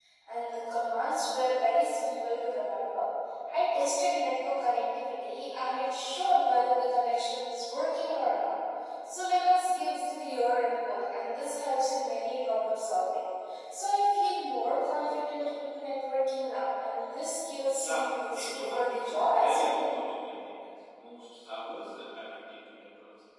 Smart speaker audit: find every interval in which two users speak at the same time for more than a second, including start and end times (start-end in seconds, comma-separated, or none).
17.7-19.9